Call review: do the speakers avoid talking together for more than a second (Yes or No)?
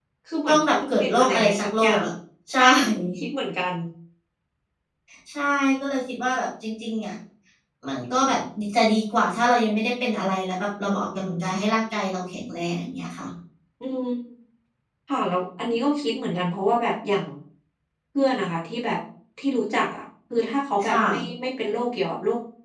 No